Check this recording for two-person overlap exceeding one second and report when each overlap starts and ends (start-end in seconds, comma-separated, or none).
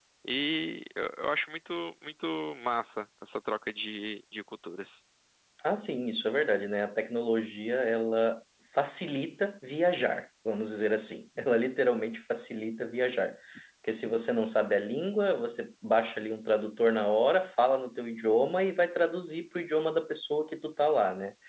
none